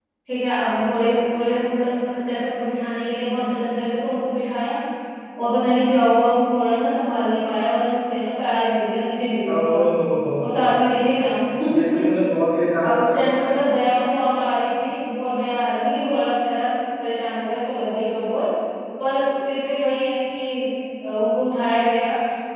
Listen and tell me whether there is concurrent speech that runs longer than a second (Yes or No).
No